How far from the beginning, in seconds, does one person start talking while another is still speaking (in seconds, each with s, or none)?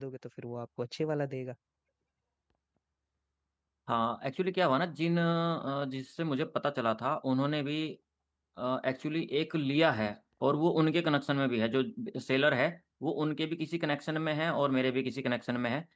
none